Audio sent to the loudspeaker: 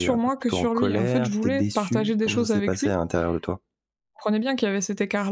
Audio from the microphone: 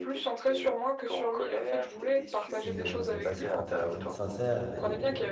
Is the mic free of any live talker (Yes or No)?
No